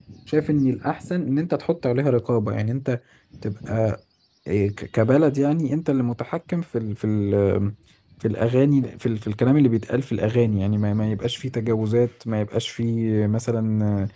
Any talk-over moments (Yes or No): No